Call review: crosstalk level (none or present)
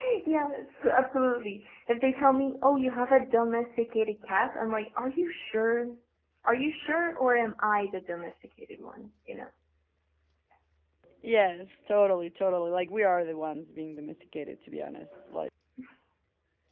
none